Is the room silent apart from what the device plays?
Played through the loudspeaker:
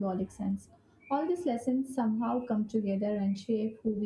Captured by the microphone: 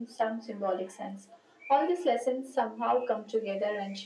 Yes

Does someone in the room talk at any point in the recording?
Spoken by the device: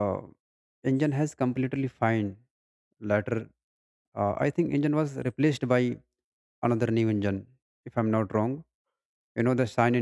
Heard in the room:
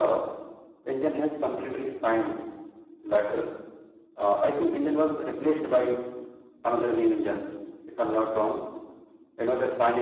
No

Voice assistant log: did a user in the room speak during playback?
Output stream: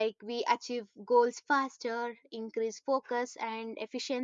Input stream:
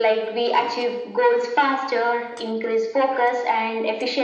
No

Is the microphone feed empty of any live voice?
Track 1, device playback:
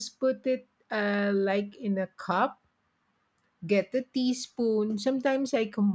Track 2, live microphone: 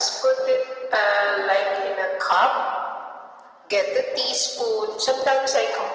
Yes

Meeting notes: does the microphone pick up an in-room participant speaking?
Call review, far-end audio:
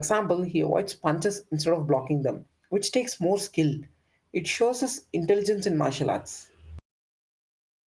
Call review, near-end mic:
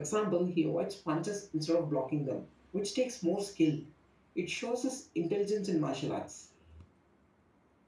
No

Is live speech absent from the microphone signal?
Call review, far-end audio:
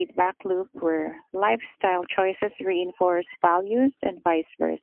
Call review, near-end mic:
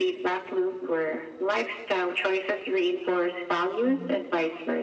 No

